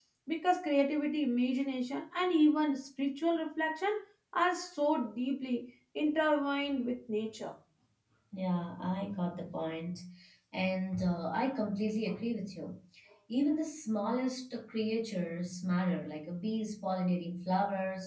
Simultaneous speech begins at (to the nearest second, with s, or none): none